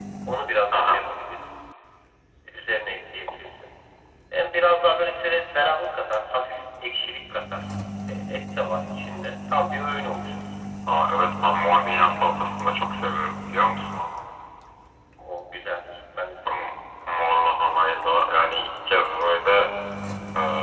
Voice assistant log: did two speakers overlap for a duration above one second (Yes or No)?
No